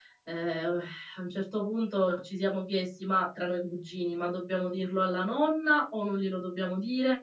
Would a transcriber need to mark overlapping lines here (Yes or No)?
No